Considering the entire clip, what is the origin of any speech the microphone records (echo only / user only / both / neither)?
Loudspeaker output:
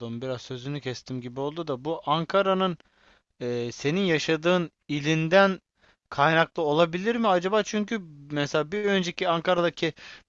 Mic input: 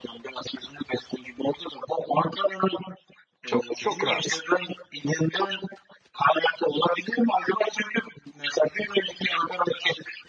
both